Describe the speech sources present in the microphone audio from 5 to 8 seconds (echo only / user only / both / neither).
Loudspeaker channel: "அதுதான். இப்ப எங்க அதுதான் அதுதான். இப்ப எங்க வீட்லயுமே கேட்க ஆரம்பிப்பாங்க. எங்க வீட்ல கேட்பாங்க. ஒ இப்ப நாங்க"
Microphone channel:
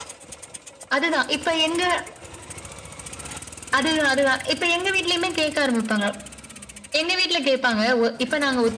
echo only